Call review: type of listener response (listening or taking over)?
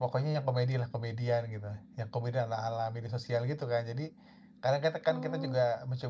listening